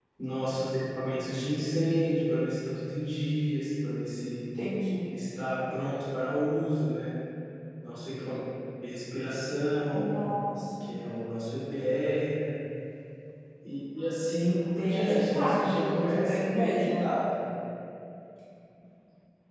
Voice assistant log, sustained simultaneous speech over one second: present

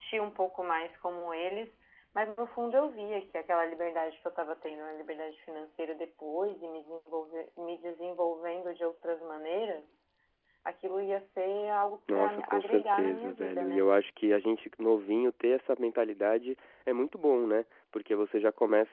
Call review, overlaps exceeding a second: present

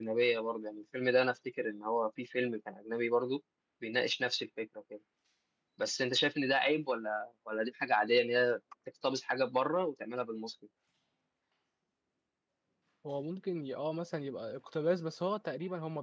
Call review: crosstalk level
none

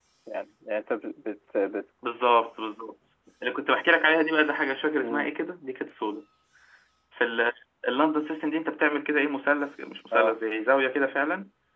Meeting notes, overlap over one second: none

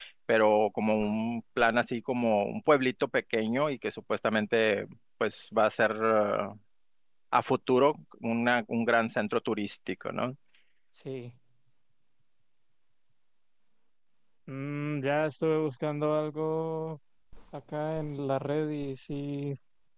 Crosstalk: none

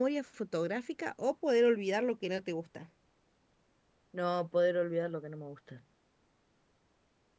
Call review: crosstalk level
none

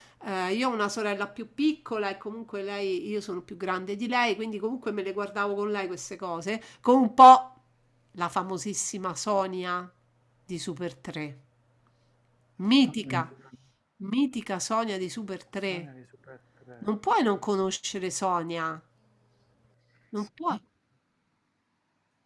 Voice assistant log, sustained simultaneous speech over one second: none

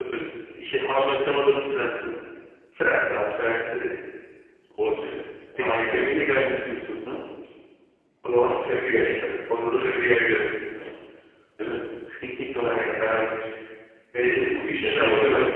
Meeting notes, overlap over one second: present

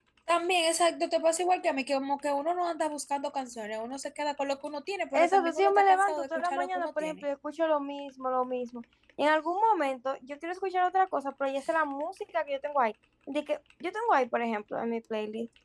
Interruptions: present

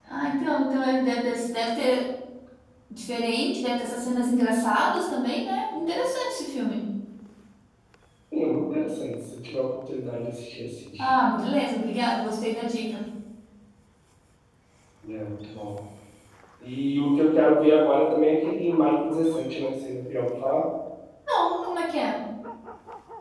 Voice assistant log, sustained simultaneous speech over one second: none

